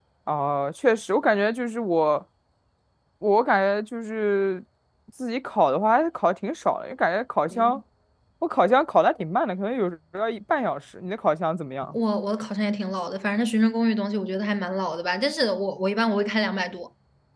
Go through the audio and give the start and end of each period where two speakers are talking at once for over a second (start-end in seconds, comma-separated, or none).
none